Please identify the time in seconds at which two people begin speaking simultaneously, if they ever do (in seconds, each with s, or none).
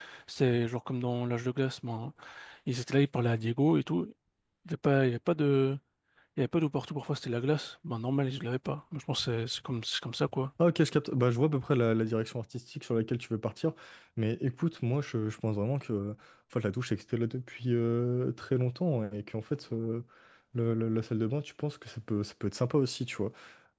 none